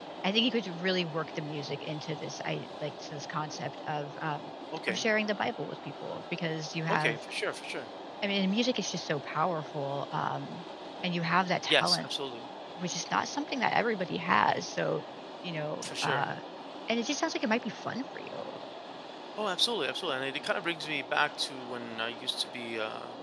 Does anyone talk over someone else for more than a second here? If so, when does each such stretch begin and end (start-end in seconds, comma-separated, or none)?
none